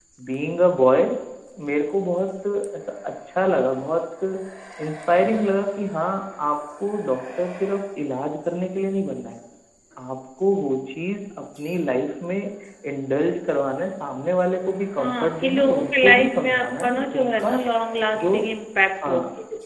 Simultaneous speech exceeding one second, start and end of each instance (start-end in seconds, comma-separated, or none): 15.0-17.5